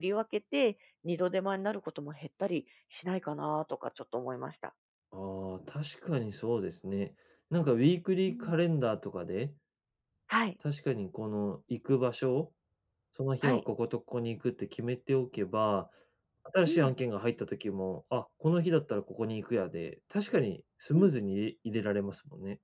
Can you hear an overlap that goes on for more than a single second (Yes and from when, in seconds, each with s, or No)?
No